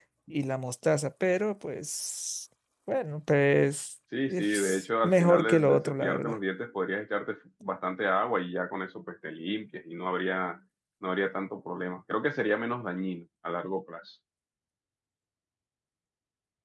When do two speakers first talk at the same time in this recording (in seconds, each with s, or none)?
4.1 s